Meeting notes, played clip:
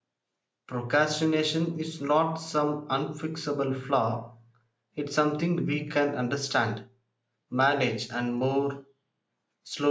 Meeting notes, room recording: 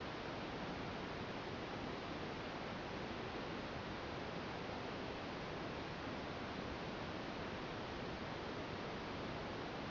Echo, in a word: none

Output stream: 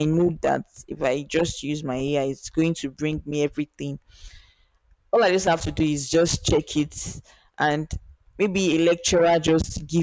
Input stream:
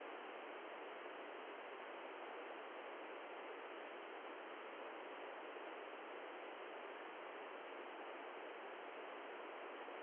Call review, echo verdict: none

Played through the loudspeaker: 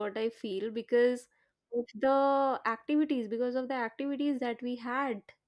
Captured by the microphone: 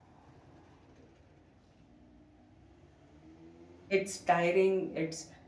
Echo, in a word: none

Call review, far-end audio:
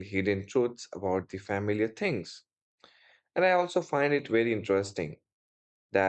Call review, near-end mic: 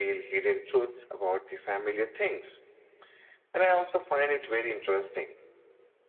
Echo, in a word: present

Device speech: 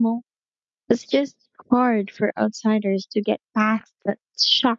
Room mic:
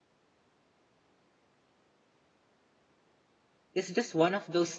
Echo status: none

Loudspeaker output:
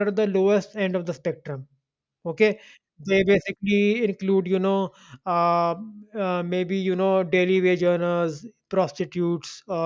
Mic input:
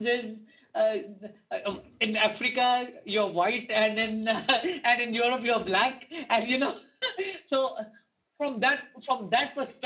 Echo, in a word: none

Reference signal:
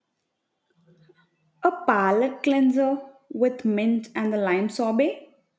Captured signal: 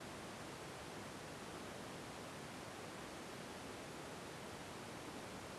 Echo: none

